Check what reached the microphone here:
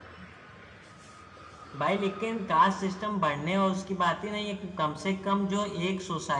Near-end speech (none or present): none